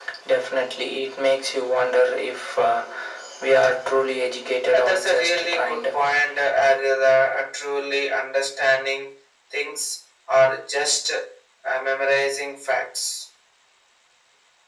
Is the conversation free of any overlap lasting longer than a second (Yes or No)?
No